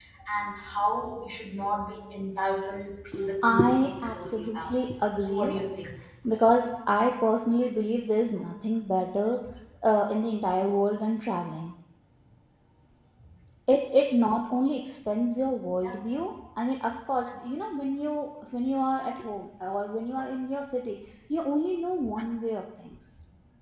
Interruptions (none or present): present